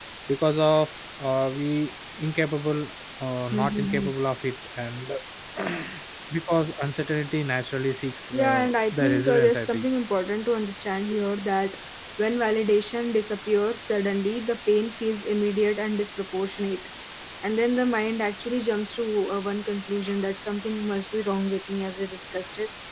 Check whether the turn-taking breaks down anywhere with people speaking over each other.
Yes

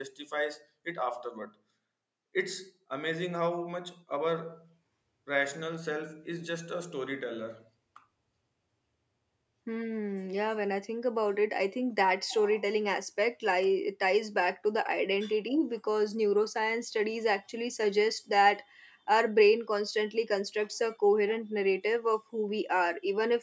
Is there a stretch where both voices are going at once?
No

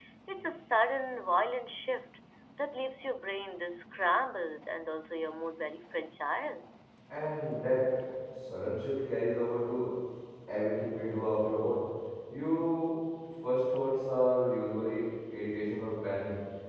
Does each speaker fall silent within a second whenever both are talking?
Yes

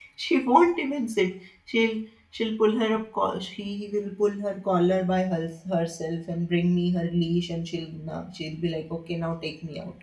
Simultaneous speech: No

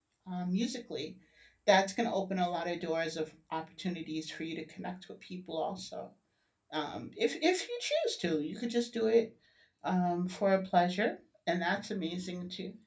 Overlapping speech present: No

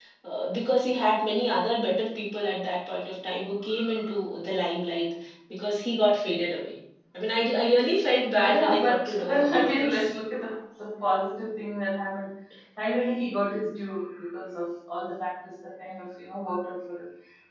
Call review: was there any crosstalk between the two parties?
Yes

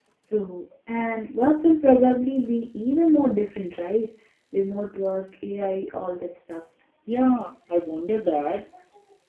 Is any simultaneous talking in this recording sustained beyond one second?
No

